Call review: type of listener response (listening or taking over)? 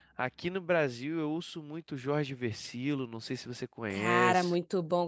taking over